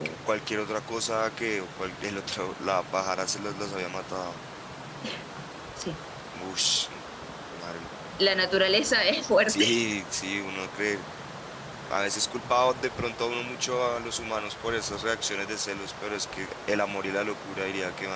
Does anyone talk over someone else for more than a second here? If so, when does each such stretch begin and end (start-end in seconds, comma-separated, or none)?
none